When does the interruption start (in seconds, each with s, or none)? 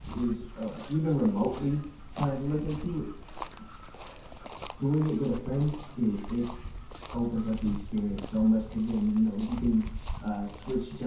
none